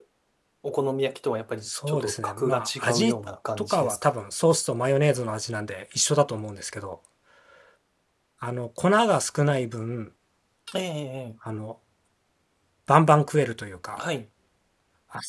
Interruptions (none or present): present